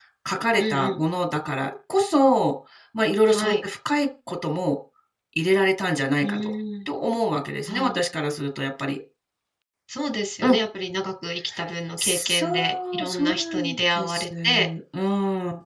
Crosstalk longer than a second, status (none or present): present